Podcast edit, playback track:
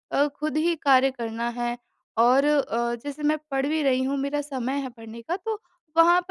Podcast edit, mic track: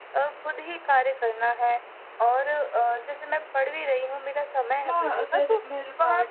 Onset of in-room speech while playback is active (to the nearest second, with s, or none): 5 s